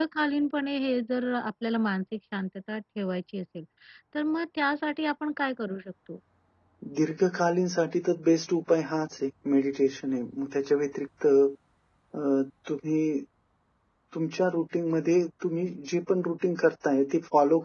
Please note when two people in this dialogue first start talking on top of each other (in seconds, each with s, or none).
none